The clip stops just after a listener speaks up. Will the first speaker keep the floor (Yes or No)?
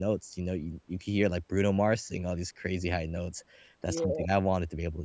Yes